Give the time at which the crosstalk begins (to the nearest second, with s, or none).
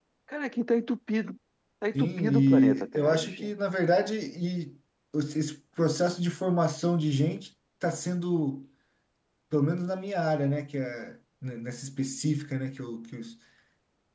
2 s